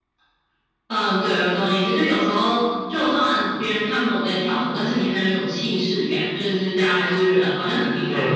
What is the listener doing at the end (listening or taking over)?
taking over